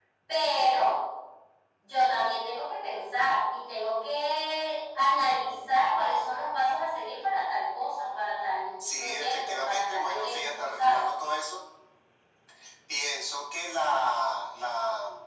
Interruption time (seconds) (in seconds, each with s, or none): 8.8 s